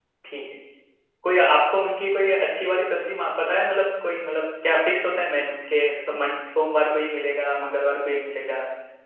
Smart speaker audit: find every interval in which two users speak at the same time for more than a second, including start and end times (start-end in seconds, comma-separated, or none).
none